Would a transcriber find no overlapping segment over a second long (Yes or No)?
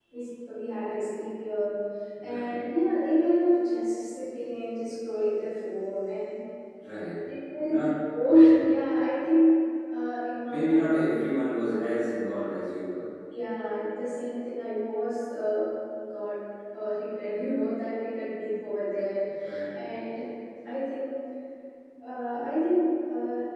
Yes